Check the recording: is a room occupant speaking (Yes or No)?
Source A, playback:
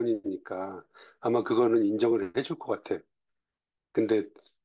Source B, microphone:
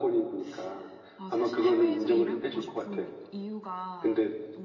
Yes